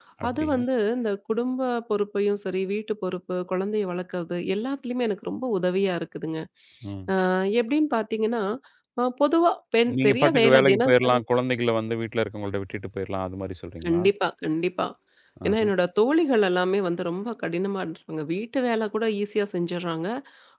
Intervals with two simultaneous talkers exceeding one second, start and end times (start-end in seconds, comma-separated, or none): 10.0-11.2